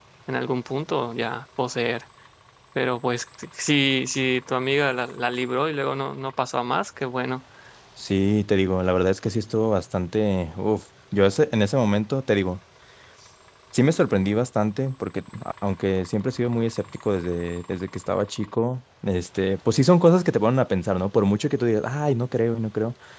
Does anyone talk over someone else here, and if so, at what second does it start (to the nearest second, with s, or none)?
none